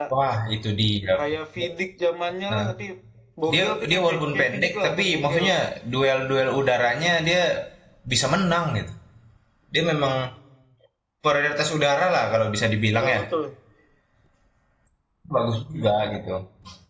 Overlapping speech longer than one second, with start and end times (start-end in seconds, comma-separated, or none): 3.5-5.5